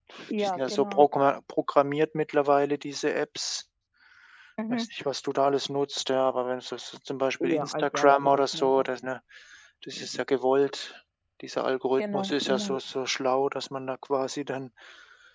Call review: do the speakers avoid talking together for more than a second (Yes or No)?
No